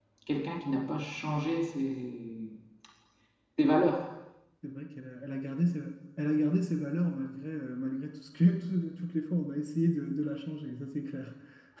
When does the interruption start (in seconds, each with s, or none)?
none